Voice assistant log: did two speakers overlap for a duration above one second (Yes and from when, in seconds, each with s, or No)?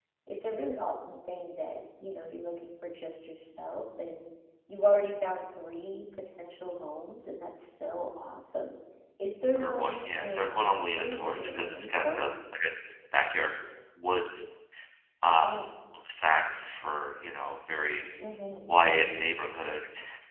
Yes, from 9.6 s